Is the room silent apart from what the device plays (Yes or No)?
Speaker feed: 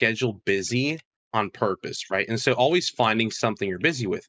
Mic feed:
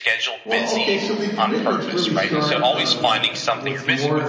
No